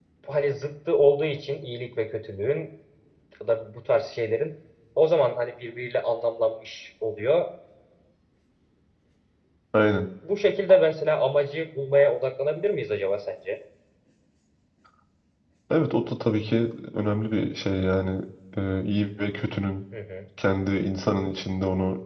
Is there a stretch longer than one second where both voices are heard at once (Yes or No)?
No